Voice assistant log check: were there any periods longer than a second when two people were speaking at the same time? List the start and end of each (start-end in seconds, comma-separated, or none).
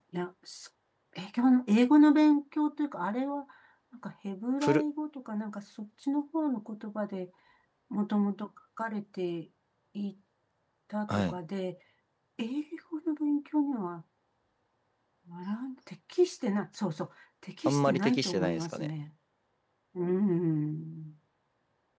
17.6-18.9